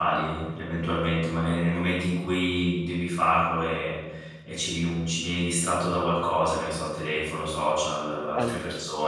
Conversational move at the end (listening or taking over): listening